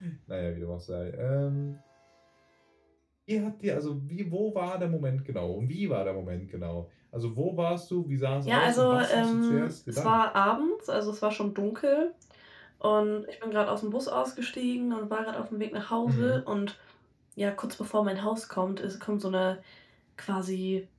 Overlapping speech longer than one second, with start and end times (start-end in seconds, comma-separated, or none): 8.5-10.2